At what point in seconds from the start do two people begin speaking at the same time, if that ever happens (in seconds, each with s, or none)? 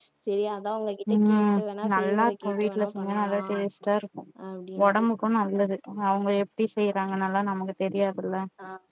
1.1 s